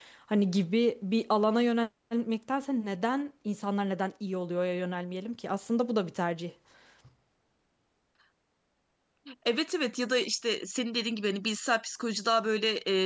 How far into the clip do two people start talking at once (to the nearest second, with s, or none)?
none